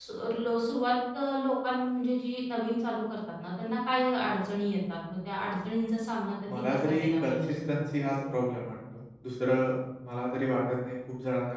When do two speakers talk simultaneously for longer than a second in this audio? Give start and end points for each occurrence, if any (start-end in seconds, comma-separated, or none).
6.5-8.1